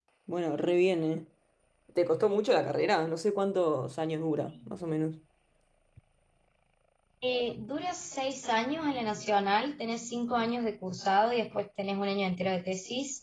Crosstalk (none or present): none